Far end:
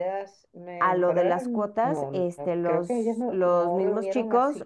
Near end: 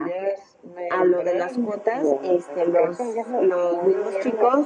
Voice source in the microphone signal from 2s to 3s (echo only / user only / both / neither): echo only